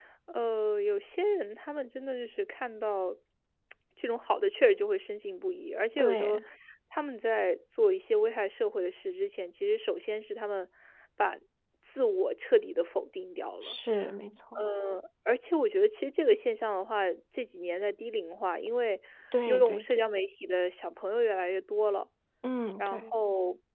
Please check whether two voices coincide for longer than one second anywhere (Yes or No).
No